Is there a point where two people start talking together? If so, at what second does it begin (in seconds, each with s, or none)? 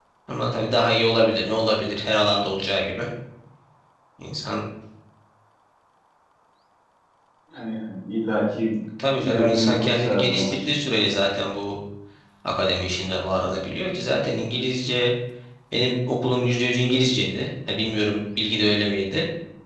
9.2 s